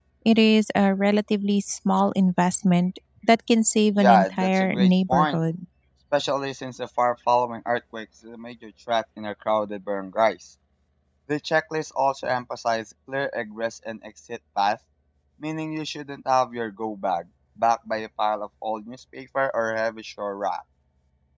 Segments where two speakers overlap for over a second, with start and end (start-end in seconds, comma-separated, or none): 4.0-5.4